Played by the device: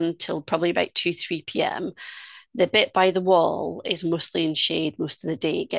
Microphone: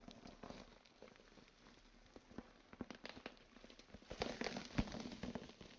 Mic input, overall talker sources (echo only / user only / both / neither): neither